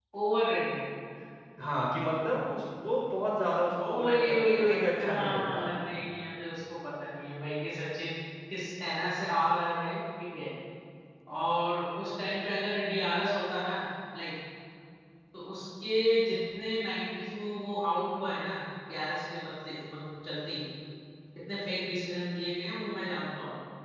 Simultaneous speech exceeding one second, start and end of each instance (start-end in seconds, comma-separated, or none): 3.8-5.9